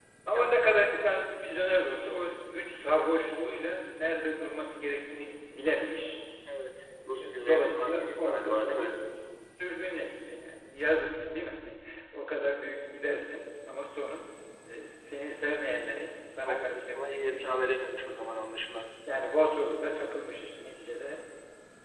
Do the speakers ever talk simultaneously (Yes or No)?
Yes